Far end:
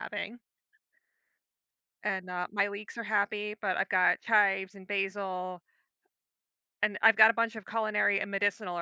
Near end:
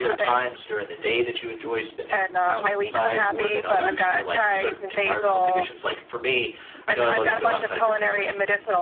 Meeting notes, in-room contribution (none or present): present